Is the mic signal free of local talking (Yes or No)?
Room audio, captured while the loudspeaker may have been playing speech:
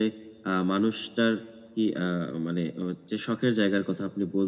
Yes